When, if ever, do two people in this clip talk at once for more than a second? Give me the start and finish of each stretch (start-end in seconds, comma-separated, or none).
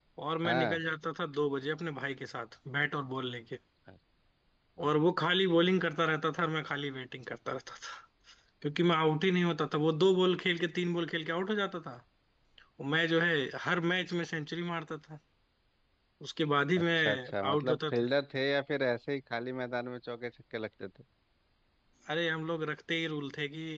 16.8-18.1